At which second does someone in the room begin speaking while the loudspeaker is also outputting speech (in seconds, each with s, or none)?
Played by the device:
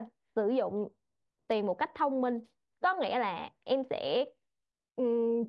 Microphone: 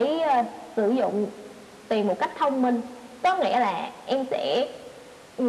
none